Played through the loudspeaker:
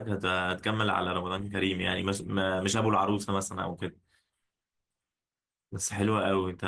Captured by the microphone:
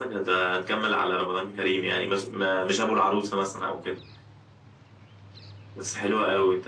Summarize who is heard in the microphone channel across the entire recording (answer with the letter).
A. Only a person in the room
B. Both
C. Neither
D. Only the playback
D